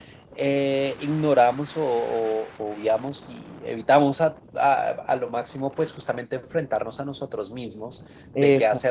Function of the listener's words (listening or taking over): listening